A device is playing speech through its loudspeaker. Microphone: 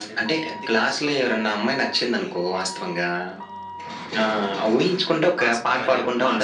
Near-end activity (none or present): present